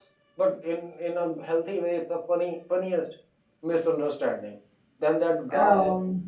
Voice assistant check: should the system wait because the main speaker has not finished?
Yes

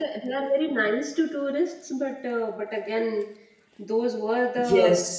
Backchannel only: Yes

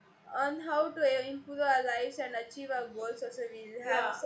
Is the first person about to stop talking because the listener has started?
Yes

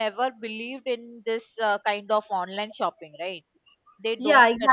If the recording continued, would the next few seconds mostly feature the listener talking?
Yes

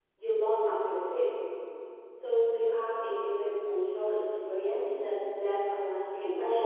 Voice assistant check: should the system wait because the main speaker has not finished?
No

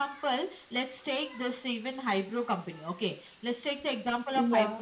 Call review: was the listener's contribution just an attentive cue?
Yes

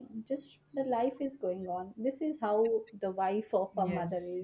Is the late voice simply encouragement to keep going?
No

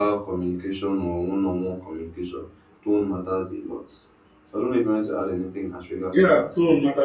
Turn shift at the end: Yes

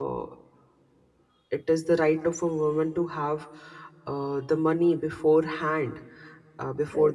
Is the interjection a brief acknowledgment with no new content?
Yes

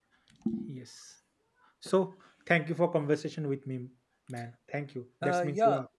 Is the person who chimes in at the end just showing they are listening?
No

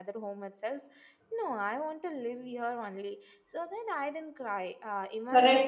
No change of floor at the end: No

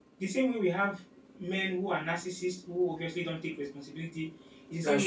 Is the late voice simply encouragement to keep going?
Yes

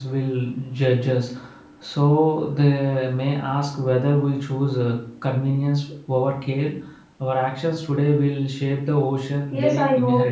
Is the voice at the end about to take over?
Yes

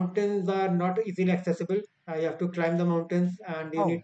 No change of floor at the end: Yes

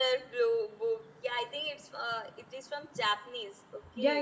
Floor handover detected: Yes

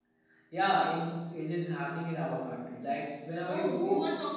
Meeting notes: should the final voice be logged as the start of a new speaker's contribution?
Yes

